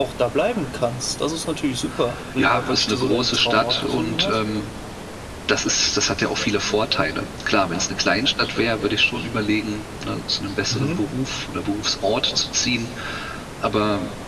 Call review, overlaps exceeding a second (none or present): present